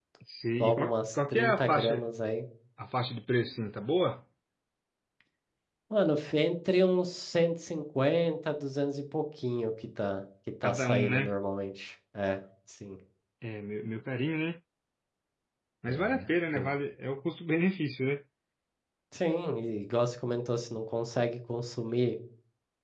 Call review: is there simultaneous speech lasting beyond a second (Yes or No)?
Yes